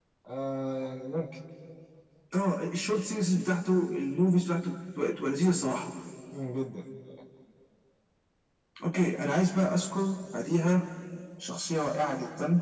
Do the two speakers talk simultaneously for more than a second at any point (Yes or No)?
No